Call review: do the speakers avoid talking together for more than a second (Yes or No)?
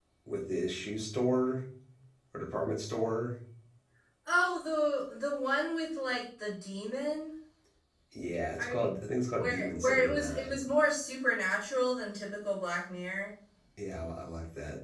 No